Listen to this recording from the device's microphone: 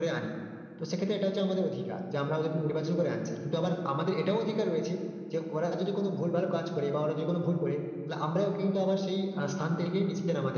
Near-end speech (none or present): none